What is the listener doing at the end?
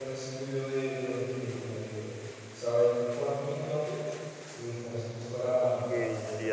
taking over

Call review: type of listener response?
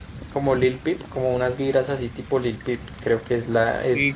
taking over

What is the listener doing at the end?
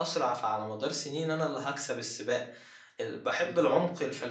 listening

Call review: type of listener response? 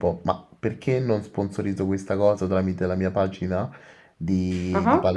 listening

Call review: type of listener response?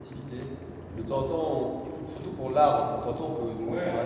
listening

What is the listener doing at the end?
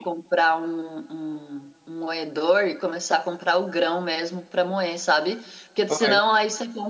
listening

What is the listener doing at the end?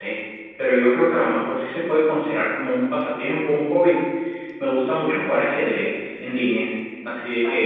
listening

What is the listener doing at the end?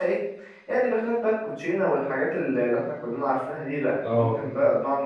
listening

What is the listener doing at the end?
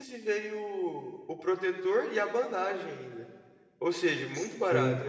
taking over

